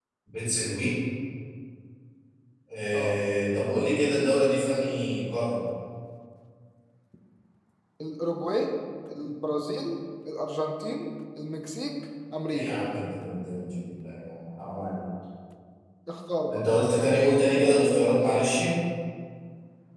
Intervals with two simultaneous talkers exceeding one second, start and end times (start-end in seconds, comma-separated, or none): none